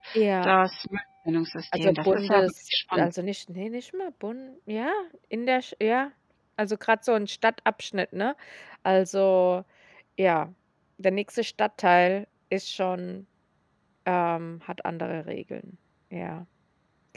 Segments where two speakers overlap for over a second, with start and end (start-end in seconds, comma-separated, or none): 1.7-3.1